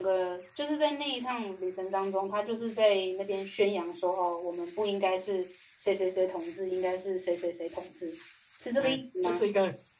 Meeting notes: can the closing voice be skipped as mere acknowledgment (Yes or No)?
No